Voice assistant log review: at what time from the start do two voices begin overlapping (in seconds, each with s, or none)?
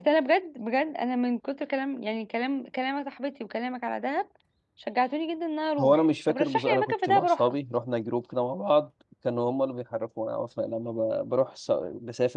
5.8 s